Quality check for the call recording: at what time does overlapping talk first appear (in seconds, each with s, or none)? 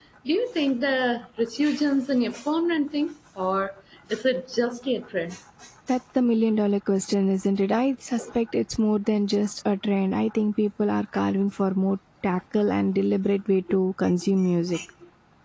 none